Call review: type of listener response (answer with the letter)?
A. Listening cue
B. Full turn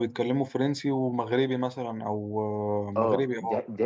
B